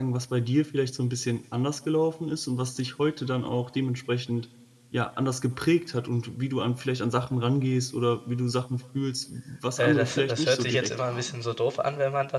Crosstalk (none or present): present